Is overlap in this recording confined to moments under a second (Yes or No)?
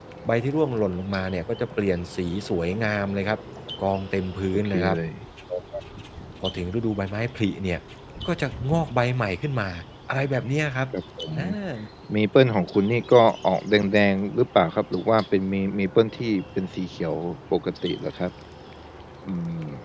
Yes